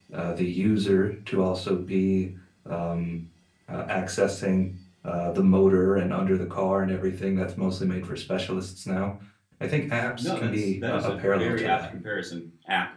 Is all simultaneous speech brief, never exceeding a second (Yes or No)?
No